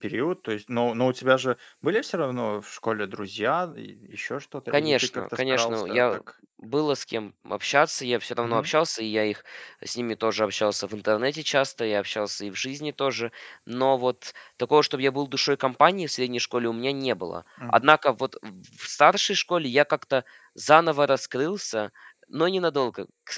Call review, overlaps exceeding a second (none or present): present